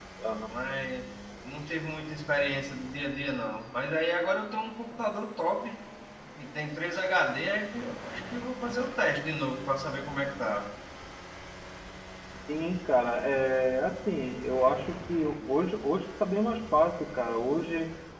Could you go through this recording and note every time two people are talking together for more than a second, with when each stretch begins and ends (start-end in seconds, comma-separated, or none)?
none